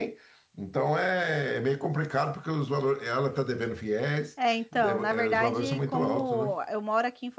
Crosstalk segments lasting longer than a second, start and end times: 4.8-6.5

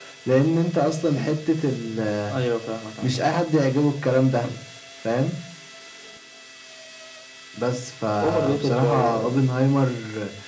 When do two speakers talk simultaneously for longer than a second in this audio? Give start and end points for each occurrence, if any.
8.2-9.5

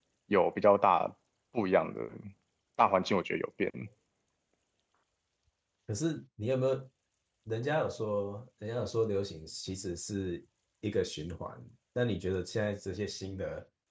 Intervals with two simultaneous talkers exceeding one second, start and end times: none

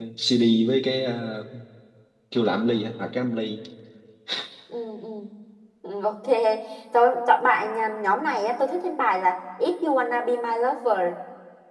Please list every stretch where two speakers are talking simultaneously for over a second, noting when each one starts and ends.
none

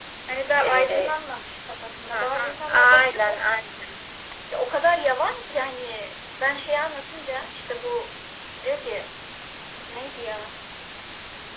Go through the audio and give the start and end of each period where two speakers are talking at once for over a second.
2.1-3.4

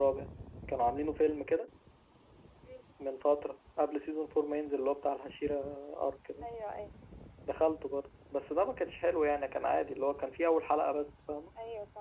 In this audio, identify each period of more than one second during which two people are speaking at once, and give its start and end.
none

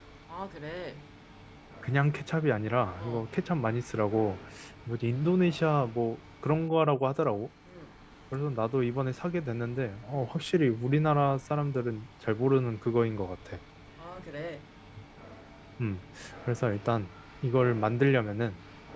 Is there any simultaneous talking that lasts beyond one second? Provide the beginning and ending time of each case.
none

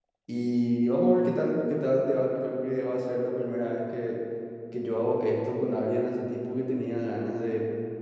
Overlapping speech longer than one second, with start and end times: none

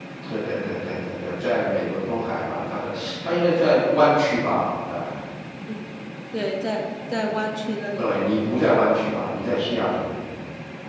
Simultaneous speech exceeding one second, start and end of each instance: none

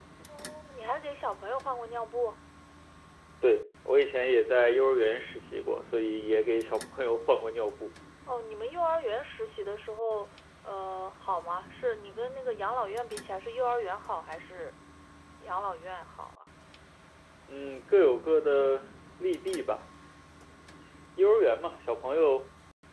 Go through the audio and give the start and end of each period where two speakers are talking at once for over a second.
none

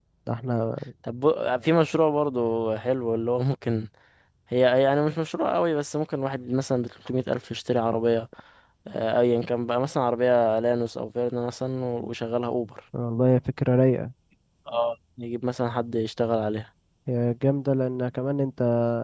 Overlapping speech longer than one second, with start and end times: none

